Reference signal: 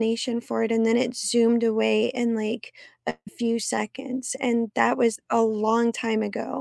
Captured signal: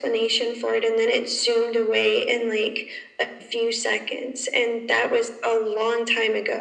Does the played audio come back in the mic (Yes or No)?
Yes